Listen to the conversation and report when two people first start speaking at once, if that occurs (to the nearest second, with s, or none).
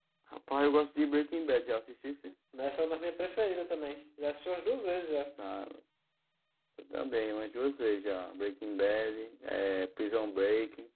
none